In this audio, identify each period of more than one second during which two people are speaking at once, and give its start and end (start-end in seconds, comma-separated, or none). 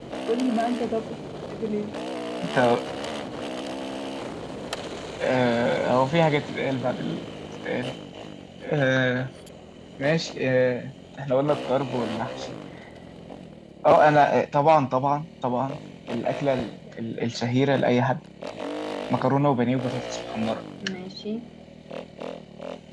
none